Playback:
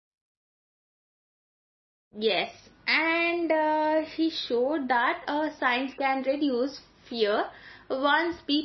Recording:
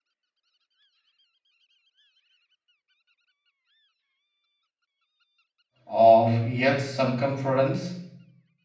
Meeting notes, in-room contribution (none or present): present